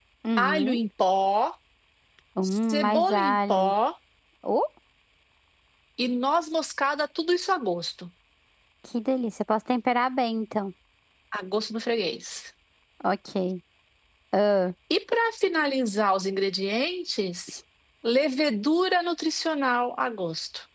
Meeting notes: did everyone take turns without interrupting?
No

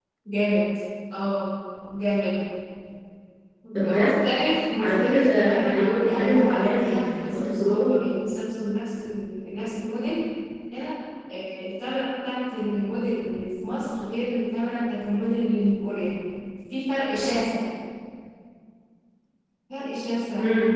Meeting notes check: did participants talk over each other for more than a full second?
Yes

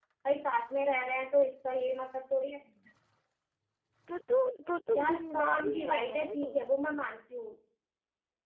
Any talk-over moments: Yes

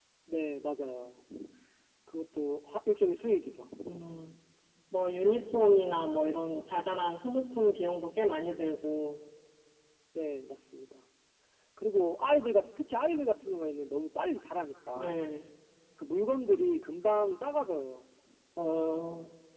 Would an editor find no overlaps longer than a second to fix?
Yes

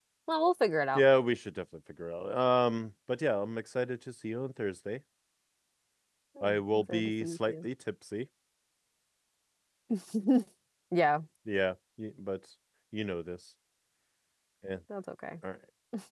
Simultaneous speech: Yes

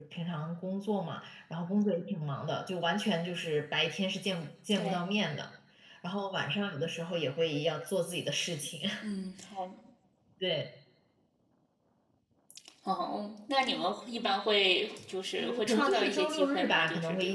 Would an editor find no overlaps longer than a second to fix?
No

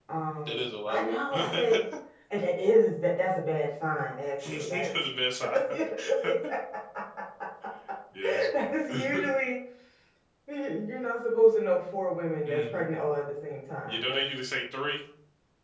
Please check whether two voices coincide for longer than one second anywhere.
Yes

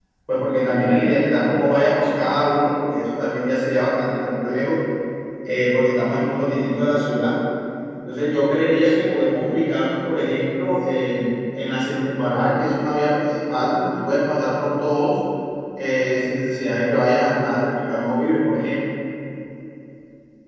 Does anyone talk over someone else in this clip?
Yes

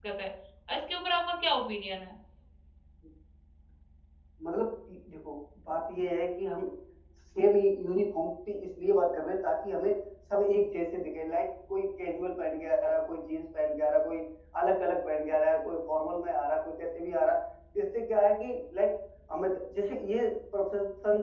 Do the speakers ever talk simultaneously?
No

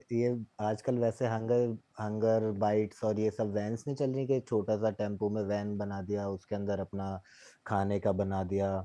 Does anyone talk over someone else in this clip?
No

